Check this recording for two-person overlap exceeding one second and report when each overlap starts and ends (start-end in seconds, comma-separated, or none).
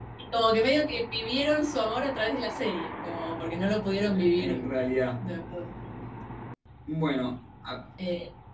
none